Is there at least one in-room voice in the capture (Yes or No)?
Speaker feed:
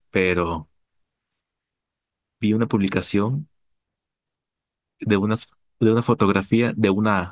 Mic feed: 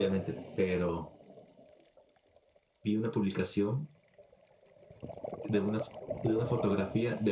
No